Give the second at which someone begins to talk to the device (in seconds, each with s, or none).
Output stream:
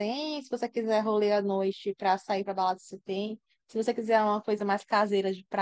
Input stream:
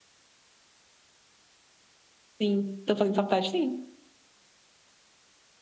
2.4 s